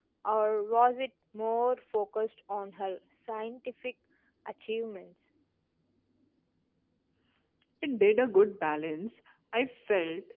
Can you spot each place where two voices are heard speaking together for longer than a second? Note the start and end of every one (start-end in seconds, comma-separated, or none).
none